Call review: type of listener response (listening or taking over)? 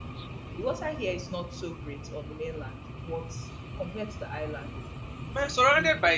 taking over